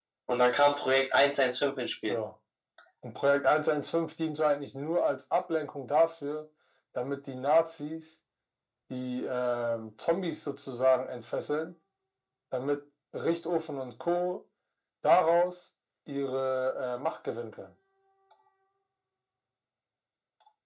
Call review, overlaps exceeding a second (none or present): none